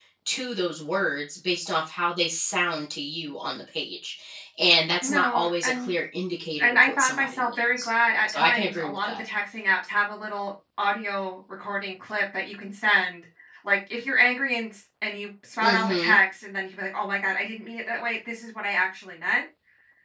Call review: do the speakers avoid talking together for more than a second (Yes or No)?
No